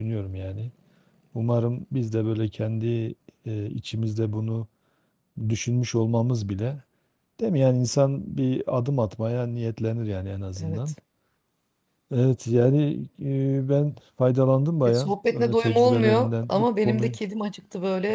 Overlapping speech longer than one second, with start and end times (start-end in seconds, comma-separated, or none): 14.8-17.1